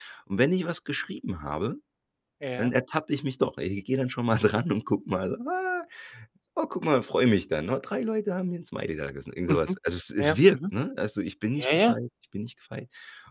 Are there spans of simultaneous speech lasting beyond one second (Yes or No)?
No